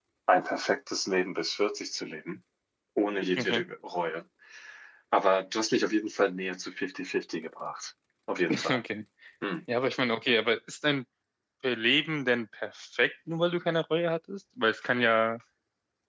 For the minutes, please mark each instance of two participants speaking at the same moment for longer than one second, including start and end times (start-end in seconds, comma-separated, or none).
none